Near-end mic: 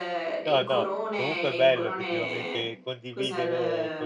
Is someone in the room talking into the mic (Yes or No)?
Yes